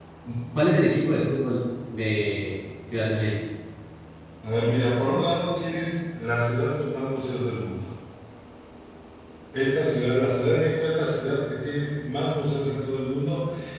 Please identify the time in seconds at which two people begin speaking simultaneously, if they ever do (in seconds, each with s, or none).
none